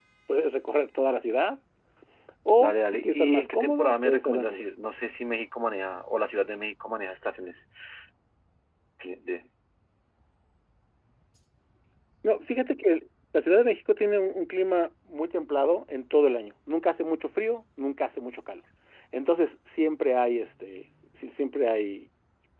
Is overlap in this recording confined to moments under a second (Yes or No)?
No